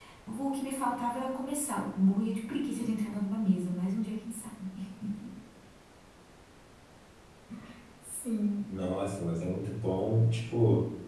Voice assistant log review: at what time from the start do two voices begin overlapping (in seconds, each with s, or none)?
none